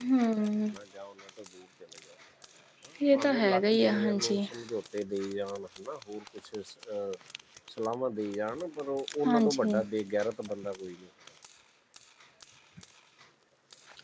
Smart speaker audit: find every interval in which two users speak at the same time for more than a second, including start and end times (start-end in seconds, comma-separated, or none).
3.1-4.5